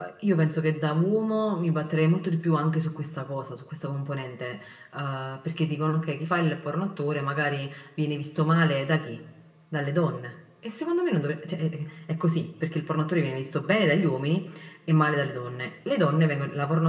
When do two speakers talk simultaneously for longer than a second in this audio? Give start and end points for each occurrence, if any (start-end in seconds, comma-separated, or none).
none